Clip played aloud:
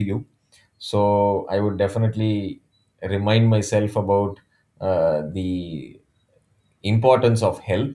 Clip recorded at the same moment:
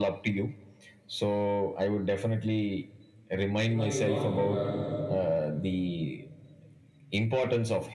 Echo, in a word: present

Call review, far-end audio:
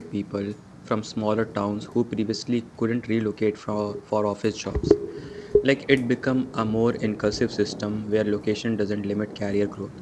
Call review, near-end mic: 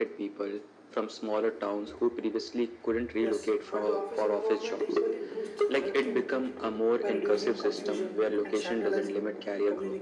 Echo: present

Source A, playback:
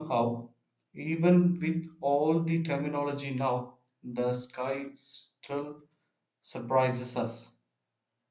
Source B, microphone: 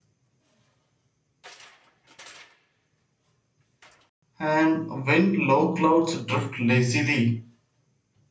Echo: none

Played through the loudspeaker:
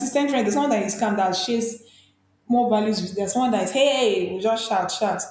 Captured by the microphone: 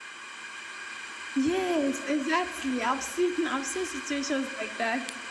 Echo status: none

